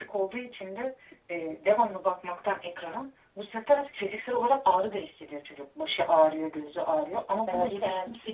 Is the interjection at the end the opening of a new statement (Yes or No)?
No